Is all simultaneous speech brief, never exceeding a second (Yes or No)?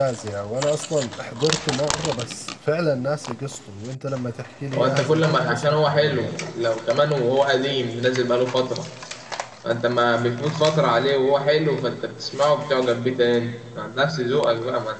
No